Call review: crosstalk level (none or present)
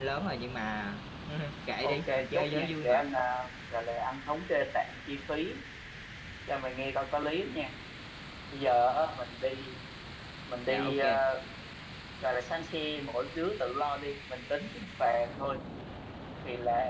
present